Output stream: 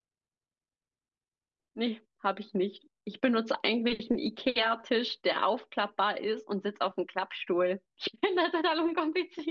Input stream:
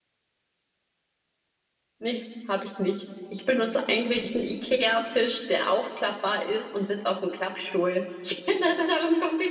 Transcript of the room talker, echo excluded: none

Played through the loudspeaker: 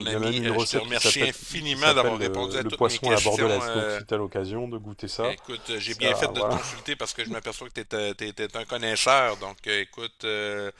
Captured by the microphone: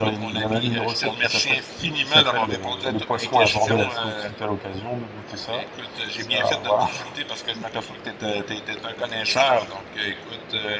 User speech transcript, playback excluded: none

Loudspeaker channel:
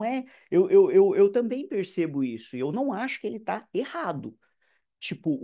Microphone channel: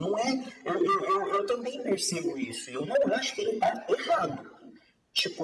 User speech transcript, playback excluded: none

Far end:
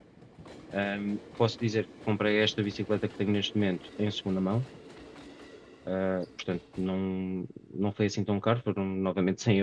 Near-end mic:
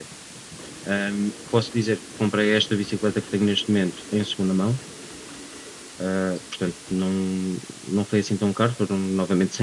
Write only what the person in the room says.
none

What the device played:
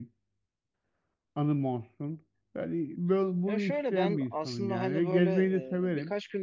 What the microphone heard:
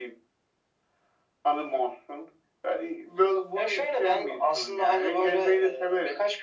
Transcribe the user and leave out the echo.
none

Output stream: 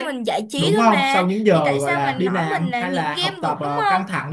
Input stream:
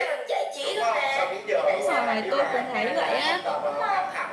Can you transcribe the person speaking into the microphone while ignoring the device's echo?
Đúng rồi, tôi cũng thấy vậy á.

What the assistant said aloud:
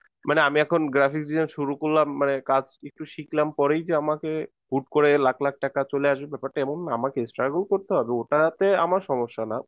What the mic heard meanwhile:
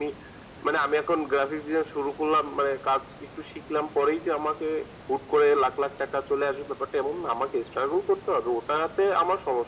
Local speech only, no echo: none

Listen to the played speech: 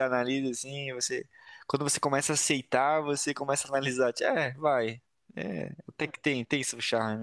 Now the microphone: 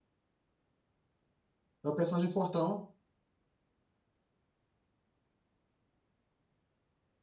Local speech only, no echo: É o personagem Fortão

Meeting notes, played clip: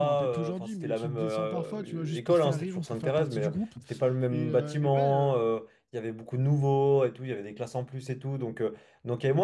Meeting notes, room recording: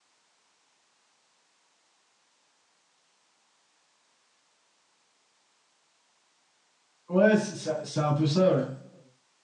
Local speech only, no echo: Ouais, c'est ça- c'est un peu ça, ouais.

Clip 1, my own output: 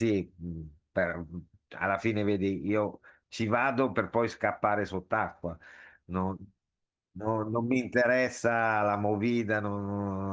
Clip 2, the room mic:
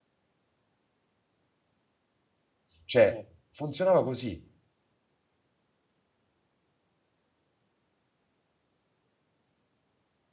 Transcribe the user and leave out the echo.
Cioè, Eh, funzionava così.

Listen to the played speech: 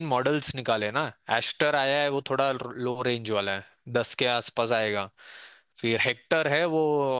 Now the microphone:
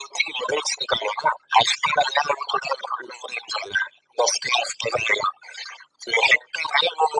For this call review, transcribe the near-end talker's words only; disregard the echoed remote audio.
none

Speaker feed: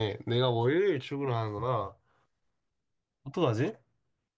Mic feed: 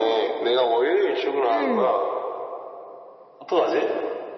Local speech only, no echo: 응.

